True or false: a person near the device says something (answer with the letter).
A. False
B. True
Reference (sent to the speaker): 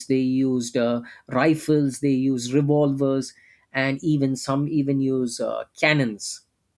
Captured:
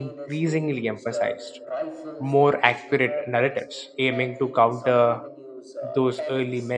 B